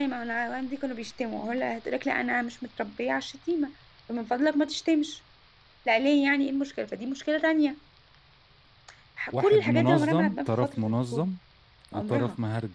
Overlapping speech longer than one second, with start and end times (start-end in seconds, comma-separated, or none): 9.4-11.2